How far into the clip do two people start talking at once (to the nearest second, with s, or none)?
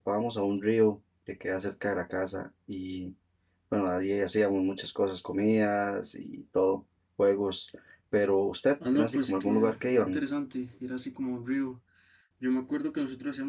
9 s